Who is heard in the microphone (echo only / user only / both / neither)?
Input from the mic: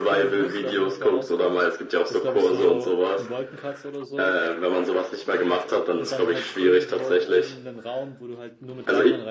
both